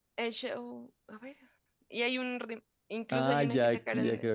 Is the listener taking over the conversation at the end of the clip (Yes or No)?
Yes